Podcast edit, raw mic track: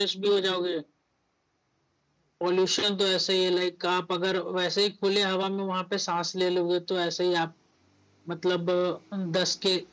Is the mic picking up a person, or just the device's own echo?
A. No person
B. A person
A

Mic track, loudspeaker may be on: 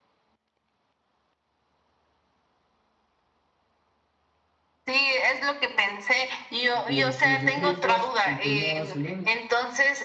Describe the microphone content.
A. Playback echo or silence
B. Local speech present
B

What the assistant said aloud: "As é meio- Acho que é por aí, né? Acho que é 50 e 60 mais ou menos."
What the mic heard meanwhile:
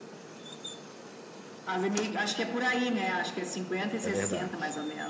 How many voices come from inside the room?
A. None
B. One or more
B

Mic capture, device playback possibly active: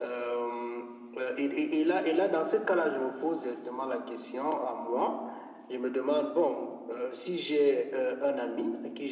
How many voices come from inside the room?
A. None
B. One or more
A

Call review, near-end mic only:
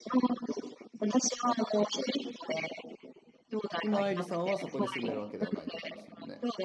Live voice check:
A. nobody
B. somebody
B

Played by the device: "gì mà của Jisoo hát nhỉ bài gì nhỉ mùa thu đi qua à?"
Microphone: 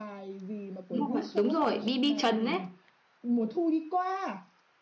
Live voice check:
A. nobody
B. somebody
B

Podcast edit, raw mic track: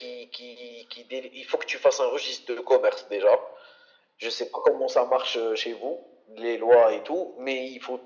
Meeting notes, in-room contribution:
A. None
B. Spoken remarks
A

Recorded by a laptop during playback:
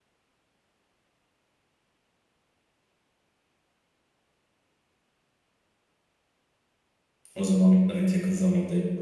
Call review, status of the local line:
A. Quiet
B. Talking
B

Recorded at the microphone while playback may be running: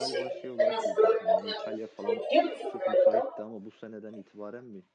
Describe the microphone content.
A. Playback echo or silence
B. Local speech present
B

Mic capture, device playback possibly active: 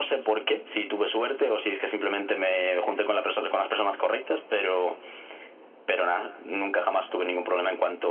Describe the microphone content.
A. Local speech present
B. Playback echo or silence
B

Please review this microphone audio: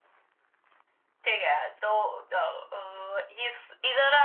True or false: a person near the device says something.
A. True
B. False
B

